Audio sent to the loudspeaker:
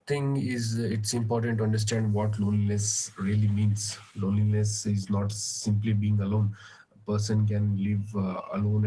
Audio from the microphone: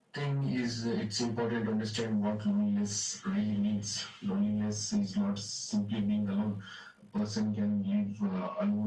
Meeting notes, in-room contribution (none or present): none